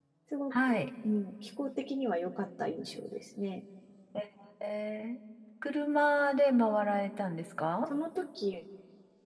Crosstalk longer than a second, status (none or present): none